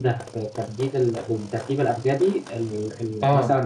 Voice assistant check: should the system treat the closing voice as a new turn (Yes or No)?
Yes